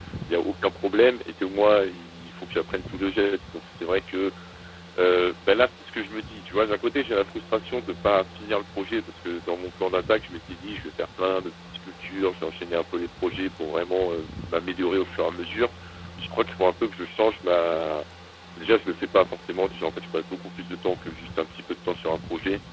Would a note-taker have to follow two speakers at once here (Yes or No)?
No